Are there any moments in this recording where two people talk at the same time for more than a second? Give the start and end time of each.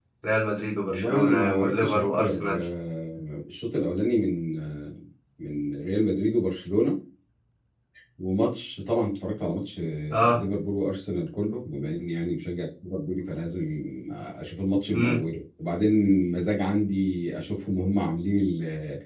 0.9-2.6

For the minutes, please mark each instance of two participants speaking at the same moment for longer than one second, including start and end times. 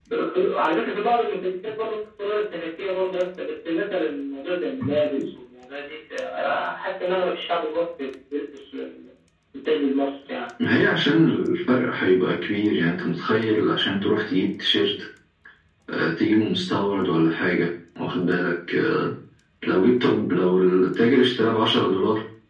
none

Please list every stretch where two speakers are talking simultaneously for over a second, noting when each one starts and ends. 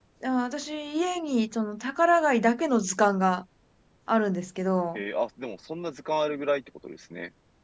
none

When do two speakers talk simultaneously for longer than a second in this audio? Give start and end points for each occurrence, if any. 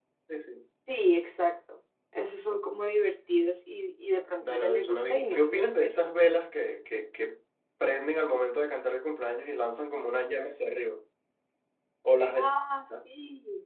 4.4-5.9

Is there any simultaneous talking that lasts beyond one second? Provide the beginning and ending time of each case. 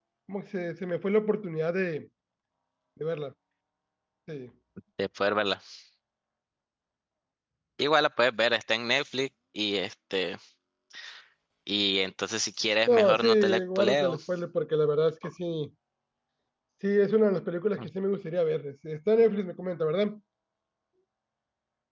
12.9-14.2

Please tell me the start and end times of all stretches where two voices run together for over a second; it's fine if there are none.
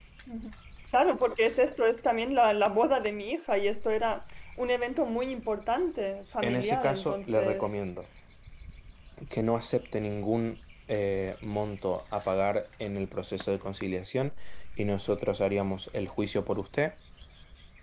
6.4-7.8

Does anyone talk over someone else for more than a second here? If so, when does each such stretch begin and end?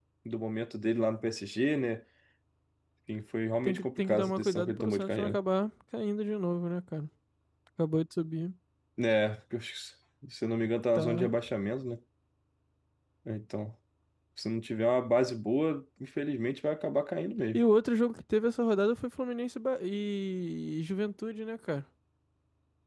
3.6-5.4

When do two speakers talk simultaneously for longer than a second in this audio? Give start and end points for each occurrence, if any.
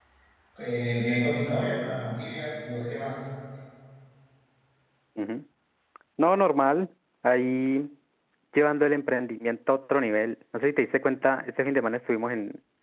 none

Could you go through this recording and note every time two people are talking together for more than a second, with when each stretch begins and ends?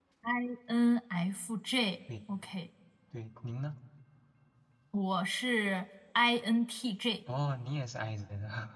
none

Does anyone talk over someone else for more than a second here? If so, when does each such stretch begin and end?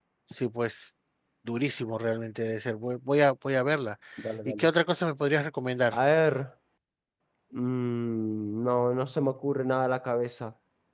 none

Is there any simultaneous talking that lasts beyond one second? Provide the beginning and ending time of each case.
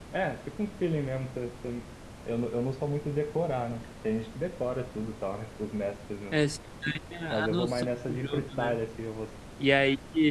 7.3-8.8

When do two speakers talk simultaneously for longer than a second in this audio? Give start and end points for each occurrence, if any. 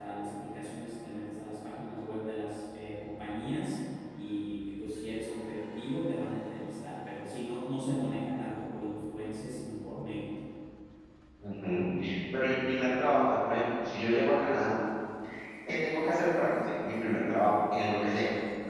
none

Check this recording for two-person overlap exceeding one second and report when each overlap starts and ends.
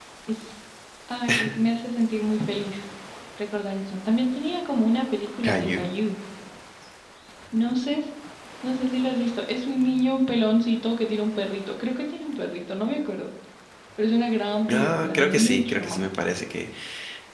14.7-16.1

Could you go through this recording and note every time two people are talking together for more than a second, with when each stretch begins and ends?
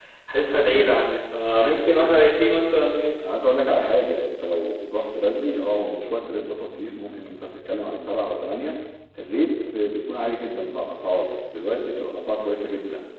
none

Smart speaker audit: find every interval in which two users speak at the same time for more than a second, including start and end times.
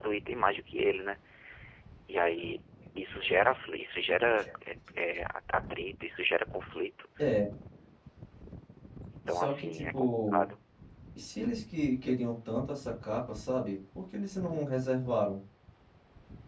9.3-10.5

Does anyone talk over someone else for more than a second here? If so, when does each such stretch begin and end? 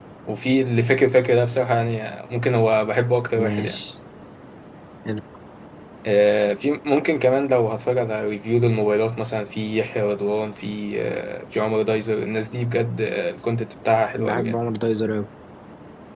none

